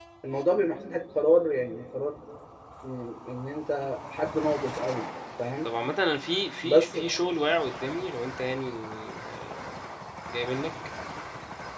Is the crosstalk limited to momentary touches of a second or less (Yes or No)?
Yes